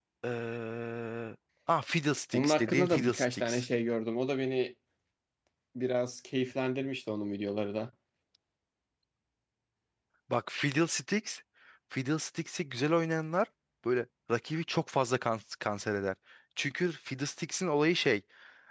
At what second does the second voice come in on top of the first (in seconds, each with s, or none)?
2.3 s